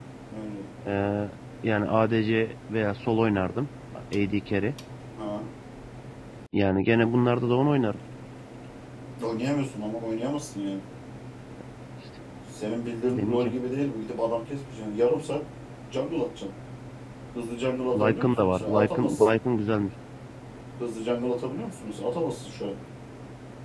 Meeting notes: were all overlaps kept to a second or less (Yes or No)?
No